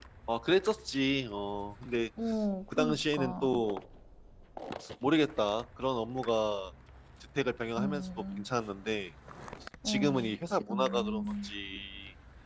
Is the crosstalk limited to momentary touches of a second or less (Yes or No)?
No